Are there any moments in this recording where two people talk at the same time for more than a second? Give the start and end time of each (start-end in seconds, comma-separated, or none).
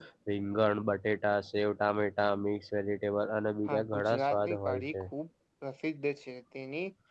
3.7-4.9